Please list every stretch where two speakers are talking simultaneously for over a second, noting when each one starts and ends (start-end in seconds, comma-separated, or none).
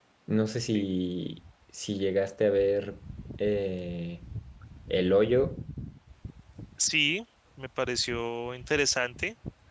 none